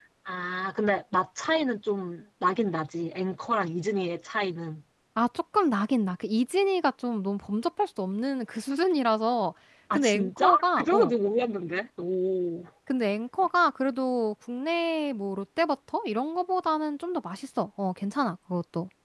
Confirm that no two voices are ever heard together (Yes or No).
No